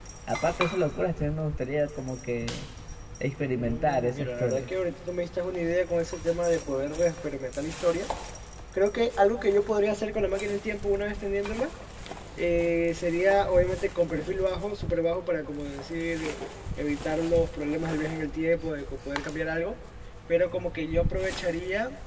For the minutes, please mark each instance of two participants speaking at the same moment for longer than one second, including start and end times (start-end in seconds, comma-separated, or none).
3.3-4.7